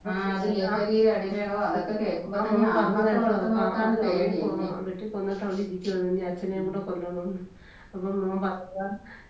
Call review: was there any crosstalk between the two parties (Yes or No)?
Yes